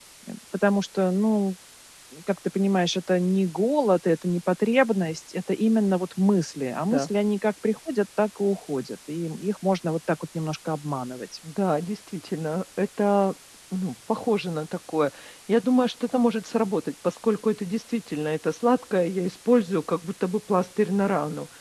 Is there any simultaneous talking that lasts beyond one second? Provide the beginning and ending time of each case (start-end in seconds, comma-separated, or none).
none